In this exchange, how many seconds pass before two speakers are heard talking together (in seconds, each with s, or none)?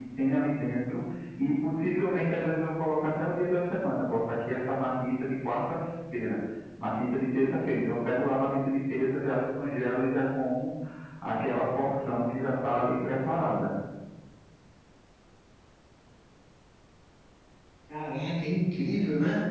none